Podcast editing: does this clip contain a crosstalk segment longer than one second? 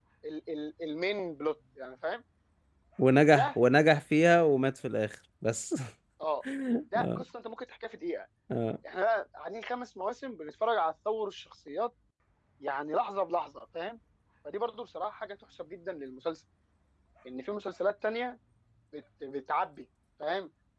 No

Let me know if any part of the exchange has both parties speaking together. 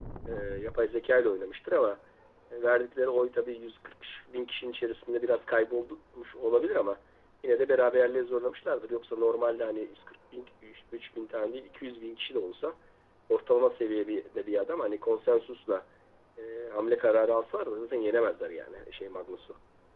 No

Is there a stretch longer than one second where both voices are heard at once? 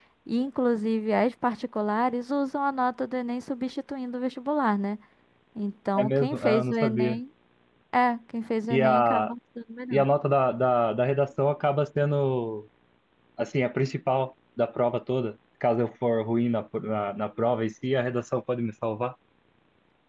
Yes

